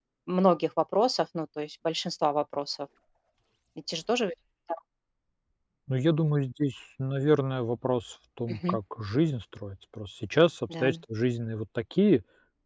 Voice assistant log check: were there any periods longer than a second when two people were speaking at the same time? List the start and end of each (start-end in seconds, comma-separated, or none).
none